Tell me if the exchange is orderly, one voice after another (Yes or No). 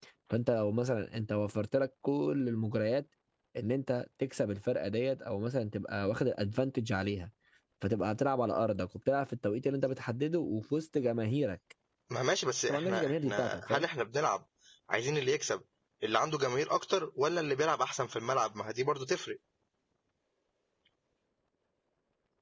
No